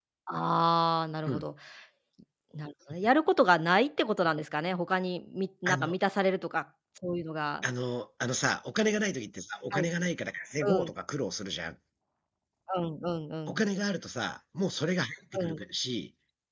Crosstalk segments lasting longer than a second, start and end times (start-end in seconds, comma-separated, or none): none